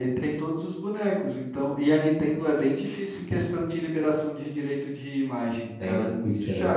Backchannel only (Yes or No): No